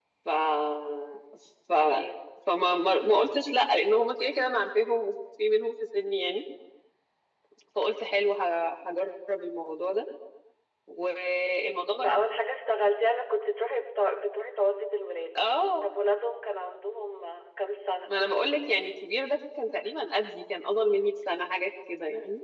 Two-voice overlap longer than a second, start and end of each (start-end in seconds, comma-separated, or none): none